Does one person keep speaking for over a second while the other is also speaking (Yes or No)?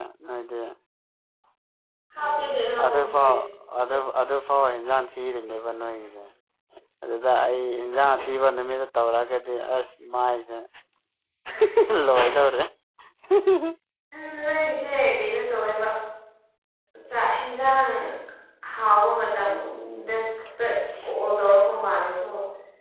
No